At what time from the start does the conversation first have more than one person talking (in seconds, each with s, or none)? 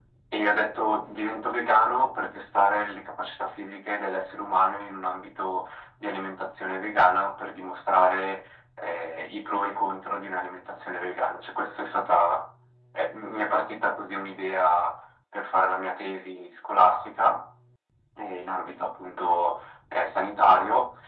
none